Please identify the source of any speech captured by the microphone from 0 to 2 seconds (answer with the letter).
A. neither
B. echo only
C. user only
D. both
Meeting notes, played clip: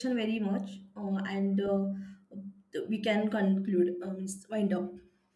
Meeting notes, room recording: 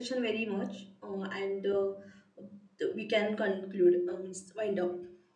B